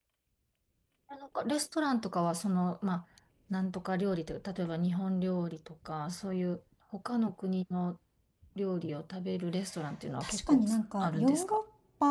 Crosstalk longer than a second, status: present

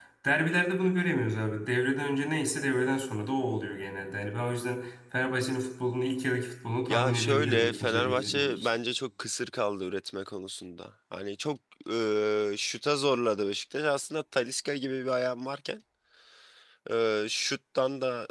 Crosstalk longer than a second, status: present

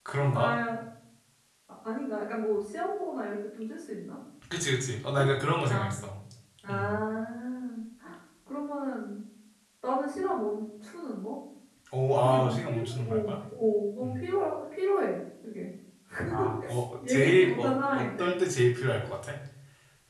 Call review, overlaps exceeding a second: present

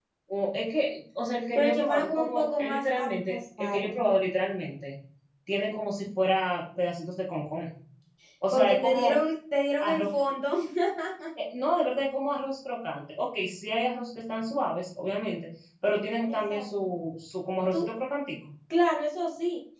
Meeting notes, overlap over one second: present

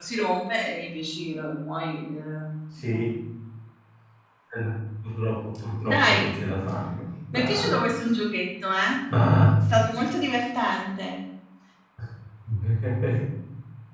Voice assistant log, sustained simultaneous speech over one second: none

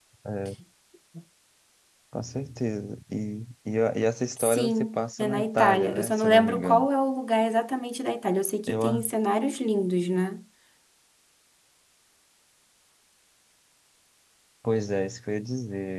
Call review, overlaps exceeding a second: present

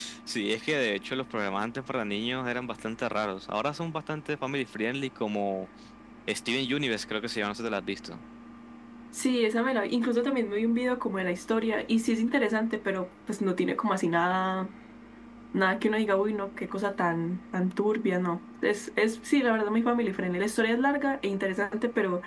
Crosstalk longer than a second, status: none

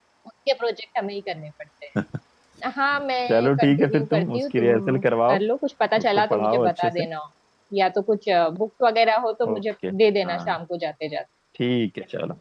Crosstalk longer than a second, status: present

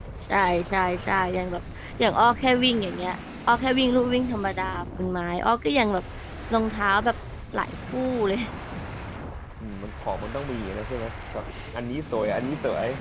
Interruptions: none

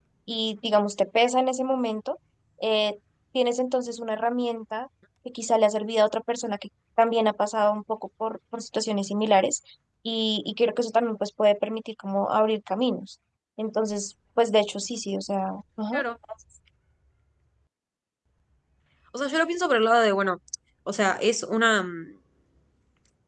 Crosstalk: none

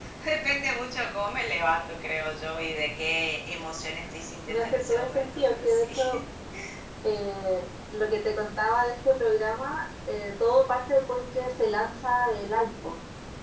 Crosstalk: present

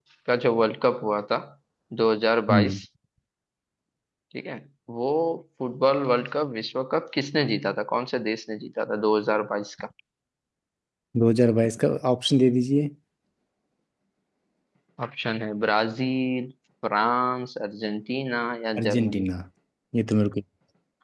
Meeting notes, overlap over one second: none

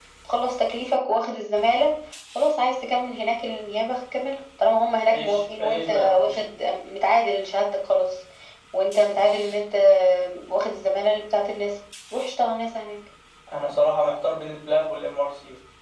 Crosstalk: present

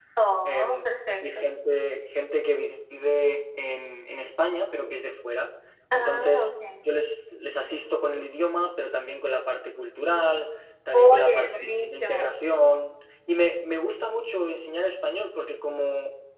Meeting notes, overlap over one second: present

